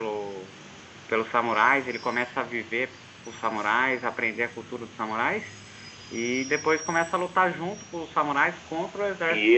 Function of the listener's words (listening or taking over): taking over